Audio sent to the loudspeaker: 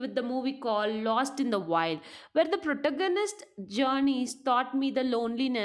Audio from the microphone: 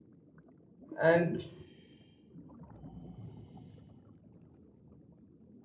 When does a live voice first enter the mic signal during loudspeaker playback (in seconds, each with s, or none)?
1.0 s